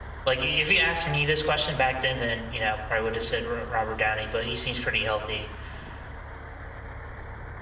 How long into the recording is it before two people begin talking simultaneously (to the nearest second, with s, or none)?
none